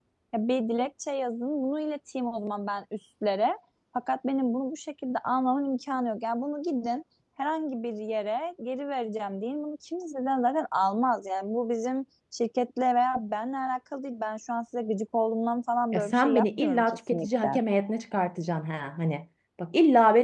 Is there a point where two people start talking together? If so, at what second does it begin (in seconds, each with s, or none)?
15.9 s